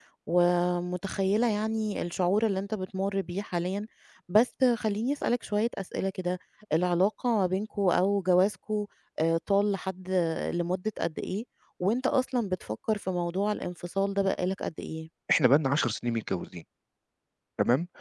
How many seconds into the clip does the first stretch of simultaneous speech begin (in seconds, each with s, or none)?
none